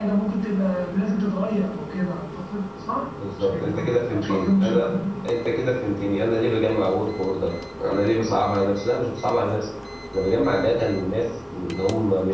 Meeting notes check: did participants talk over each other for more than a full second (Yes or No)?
Yes